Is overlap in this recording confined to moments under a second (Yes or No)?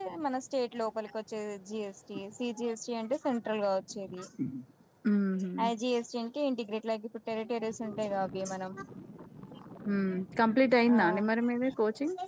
Yes